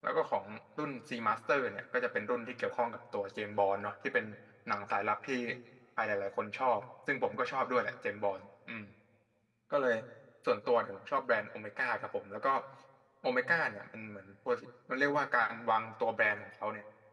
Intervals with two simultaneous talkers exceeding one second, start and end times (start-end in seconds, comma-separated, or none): none